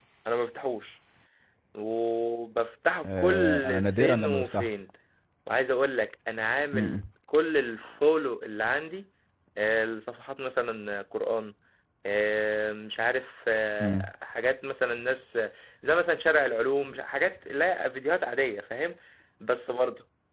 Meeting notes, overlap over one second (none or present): present